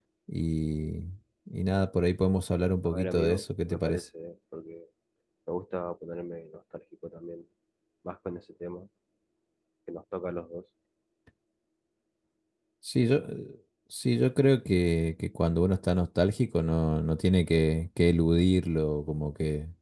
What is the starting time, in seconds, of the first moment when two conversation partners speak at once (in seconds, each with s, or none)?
2.9 s